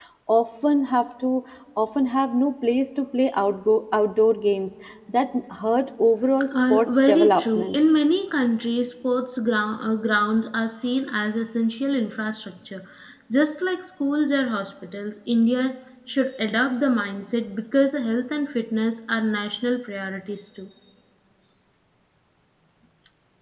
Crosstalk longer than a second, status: present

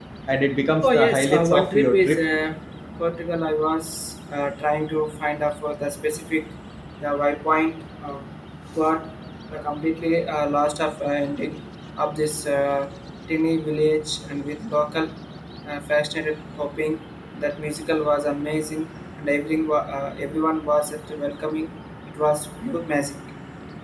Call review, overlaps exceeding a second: present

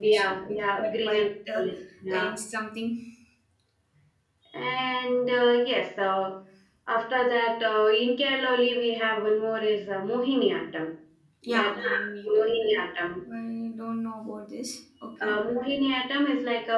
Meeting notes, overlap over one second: present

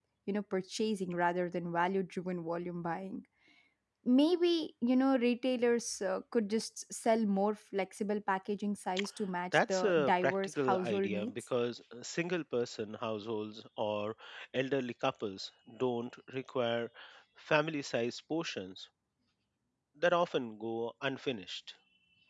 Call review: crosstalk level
present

